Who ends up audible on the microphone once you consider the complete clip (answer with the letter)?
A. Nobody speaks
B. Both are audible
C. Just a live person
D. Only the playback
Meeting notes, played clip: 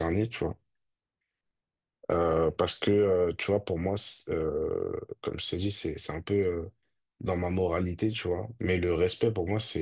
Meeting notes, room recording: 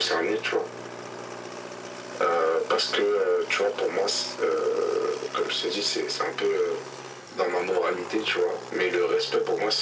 D